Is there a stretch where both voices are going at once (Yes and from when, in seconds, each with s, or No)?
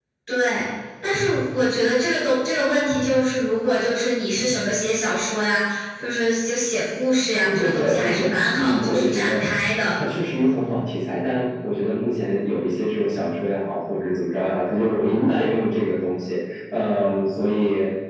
Yes, from 7.4 s